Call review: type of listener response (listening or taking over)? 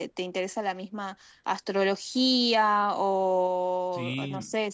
listening